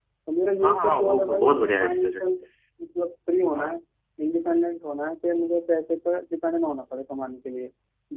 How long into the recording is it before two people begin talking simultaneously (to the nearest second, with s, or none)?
1 s